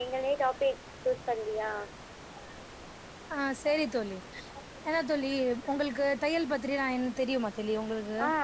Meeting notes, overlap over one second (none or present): none